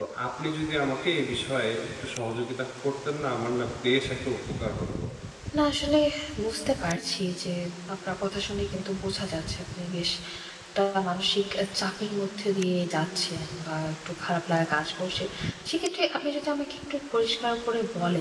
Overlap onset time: none

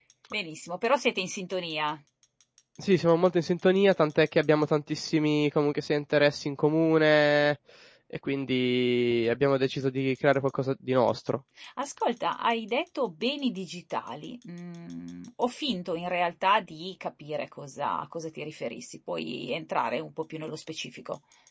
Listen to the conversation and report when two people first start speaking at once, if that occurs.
none

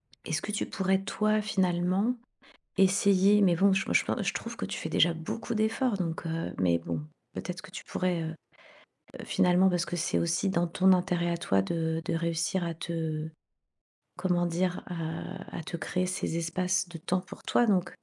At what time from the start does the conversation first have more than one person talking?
none

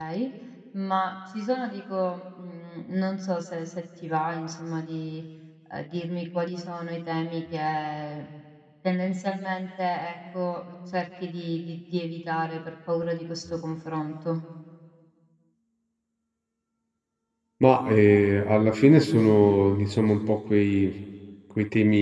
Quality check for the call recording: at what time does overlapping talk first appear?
none

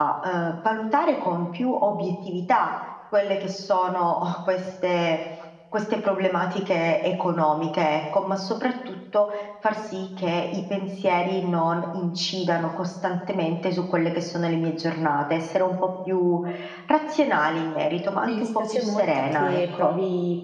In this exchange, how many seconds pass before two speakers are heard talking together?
18.2 s

